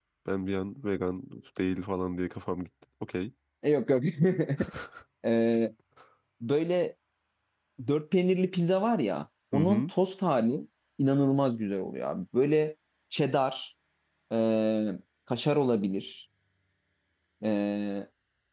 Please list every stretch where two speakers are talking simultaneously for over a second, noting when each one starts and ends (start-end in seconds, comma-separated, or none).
none